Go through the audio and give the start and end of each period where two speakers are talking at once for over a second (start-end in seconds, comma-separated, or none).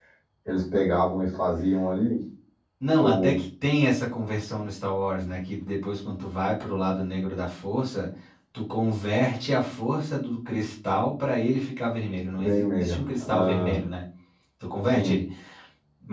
12.4-13.8